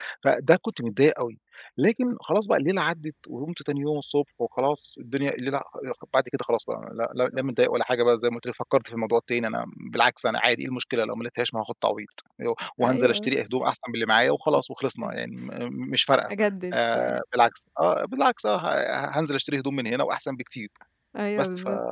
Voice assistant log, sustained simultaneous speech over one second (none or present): none